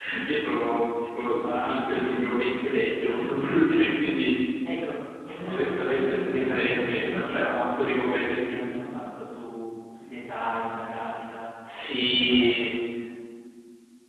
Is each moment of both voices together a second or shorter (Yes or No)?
No